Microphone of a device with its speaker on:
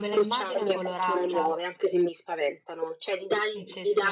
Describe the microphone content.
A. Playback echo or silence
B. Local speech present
B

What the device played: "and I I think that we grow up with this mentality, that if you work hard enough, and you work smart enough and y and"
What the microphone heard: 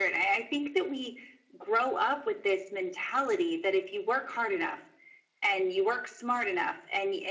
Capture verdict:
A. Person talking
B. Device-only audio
B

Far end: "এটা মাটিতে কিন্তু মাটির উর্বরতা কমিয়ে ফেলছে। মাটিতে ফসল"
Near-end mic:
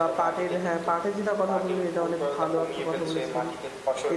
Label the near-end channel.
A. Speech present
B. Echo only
A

